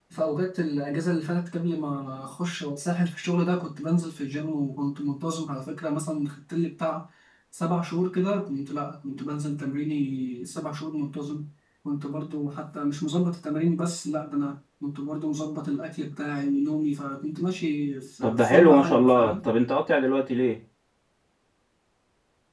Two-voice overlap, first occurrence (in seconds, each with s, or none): 18.2 s